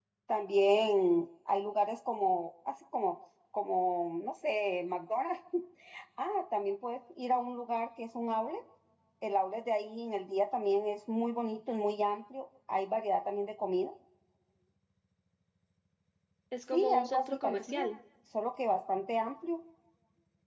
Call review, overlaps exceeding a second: present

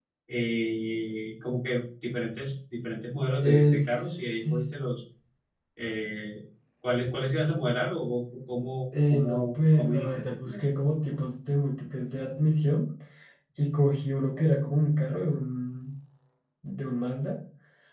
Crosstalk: present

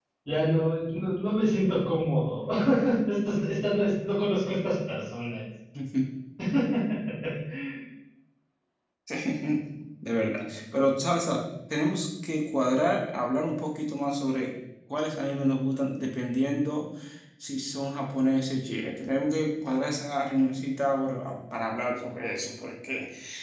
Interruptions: none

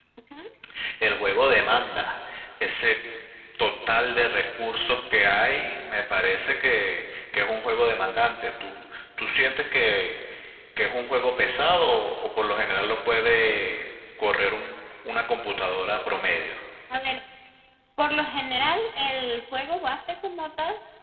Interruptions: none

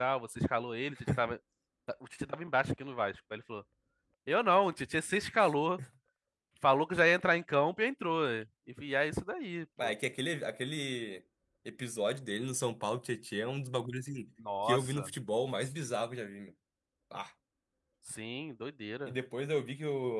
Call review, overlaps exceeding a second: none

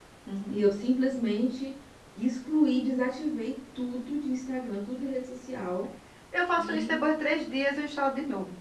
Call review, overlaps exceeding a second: none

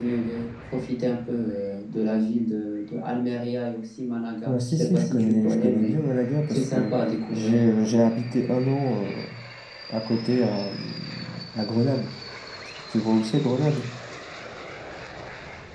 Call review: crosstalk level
present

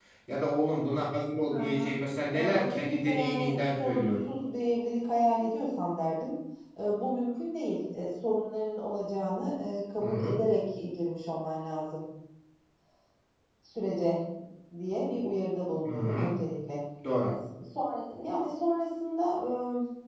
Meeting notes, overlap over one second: present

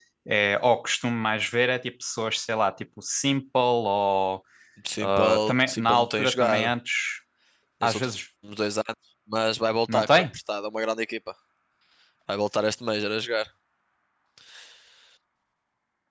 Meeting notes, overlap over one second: present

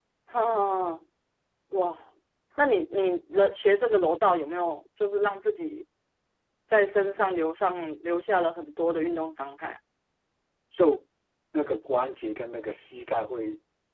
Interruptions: none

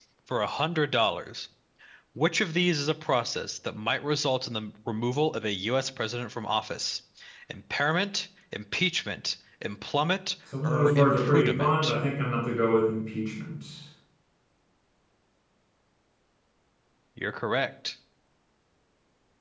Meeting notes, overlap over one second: present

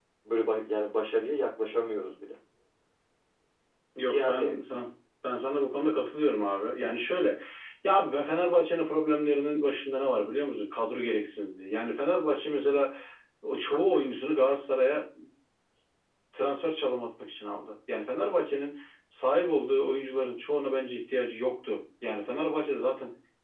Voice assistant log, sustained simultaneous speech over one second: none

